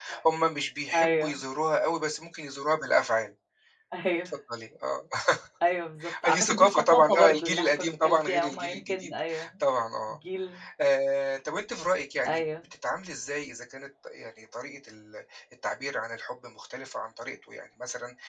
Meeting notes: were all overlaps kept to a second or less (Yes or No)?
No